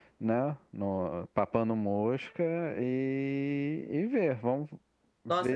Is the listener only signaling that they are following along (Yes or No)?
No